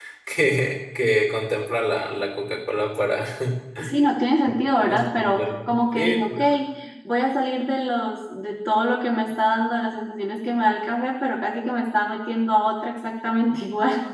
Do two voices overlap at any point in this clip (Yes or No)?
Yes